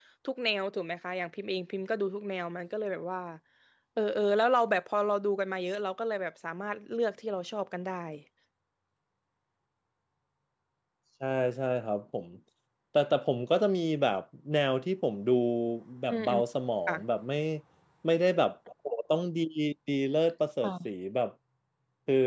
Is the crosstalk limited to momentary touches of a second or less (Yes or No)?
Yes